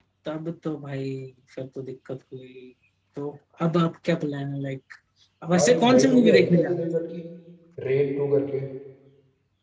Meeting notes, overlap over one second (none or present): present